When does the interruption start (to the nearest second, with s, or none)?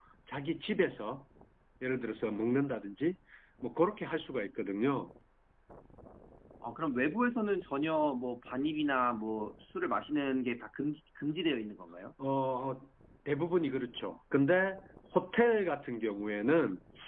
none